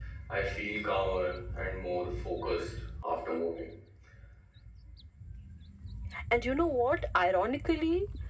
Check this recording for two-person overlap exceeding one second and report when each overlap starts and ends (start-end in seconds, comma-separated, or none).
none